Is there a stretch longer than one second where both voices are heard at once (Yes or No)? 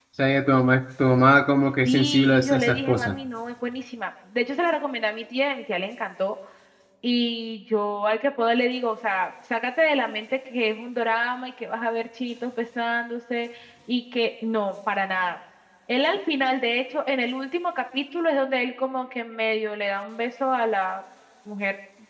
Yes